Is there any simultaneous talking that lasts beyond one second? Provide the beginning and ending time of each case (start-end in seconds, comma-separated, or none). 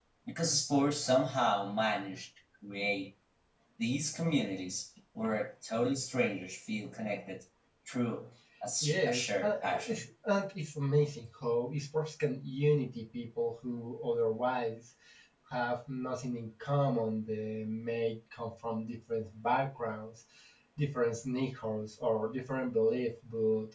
8.8-10.0